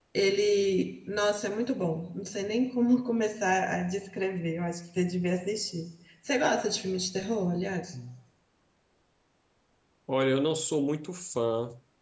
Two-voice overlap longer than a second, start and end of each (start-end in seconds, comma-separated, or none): none